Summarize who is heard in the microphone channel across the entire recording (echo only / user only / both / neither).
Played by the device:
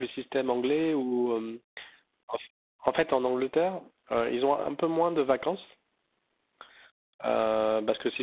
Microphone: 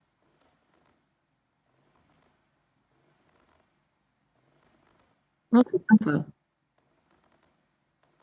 user only